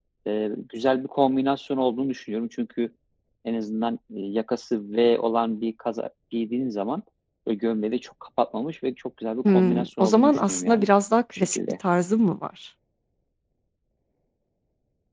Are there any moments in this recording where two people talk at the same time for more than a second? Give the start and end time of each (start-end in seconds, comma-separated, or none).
9.4-10.9